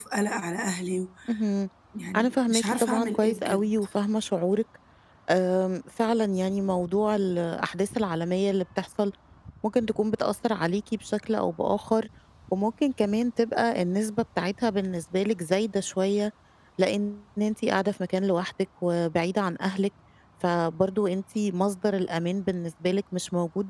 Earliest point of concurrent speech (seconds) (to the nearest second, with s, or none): 2 s